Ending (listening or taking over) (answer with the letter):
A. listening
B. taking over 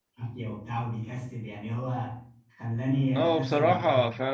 B